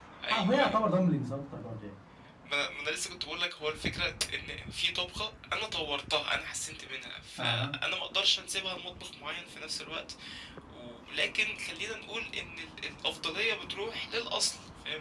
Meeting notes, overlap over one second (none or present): none